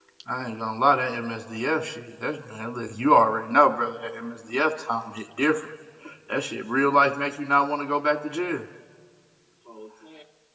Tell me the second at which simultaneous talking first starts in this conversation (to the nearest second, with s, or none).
none